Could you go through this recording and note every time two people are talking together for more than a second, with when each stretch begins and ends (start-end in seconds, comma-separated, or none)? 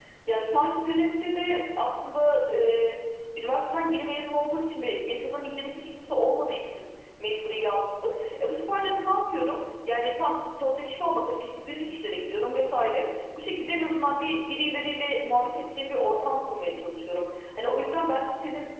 none